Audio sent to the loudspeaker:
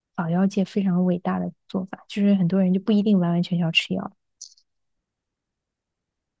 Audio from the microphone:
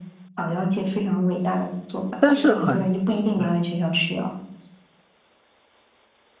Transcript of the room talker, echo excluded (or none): 但是很，嗯，